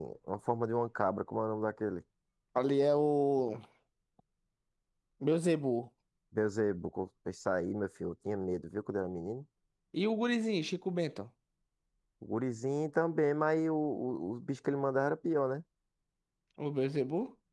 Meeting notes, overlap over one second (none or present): none